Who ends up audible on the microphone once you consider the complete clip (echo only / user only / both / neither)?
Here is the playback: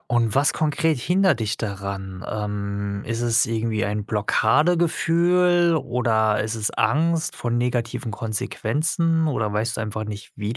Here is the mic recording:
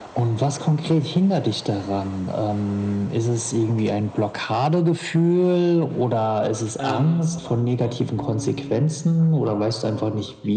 both